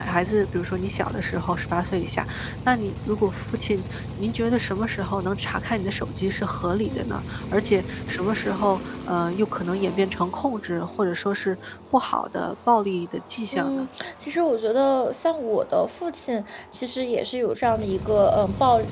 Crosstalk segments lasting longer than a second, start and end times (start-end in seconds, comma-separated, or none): none